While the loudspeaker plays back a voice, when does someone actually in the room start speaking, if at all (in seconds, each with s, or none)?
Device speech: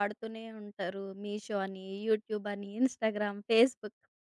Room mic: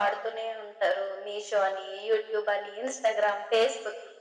none